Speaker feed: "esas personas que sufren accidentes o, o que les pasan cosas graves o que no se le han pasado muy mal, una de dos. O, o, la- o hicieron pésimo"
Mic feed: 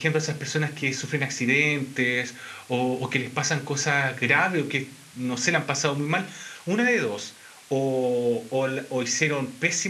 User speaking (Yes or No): No